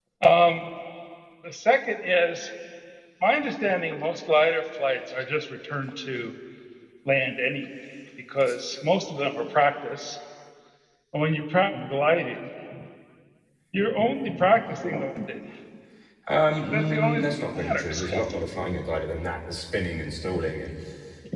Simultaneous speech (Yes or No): Yes